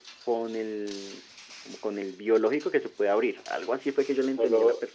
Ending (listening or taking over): taking over